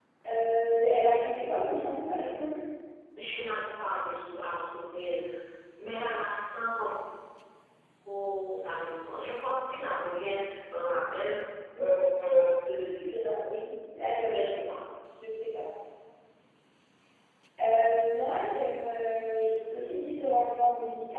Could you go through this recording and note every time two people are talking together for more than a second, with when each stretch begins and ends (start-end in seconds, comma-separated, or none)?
none